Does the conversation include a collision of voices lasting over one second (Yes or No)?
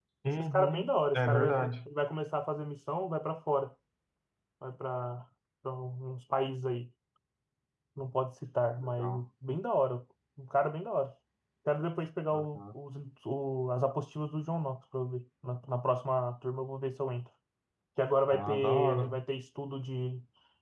Yes